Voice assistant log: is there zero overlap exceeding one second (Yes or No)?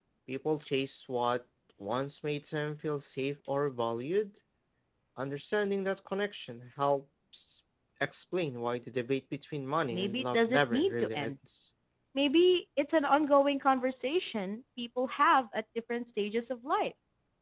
No